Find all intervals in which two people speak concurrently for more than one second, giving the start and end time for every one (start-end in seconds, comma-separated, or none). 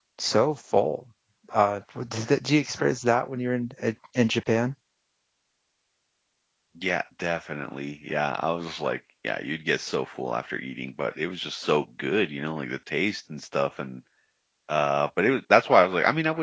none